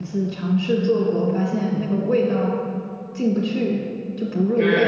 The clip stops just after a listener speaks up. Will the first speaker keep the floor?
No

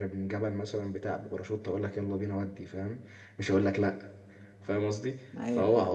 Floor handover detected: No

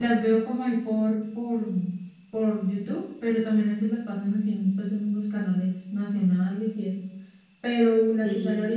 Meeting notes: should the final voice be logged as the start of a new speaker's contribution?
No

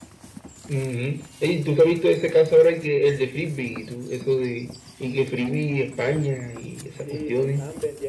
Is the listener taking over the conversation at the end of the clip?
Yes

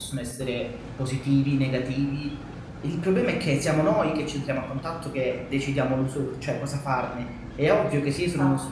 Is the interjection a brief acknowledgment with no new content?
Yes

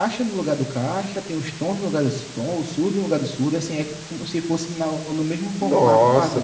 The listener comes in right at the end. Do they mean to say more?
Yes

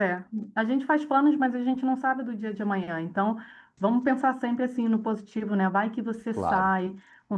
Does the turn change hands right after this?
No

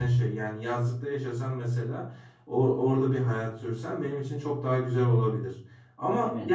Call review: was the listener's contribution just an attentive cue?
Yes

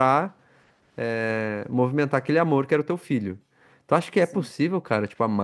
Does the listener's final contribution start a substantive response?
No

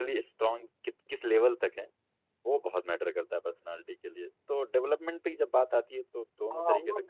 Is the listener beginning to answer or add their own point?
Yes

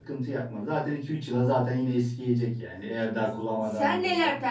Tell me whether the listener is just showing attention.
No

